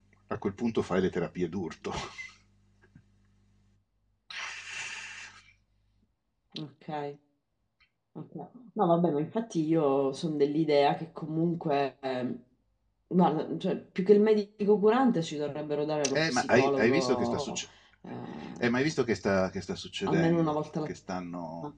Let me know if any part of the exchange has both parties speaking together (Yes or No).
Yes